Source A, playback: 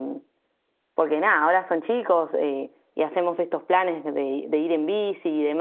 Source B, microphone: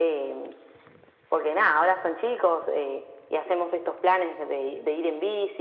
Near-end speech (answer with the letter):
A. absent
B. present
A